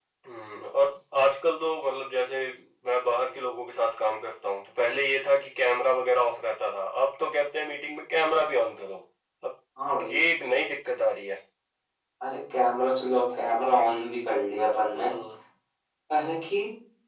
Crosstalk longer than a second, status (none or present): none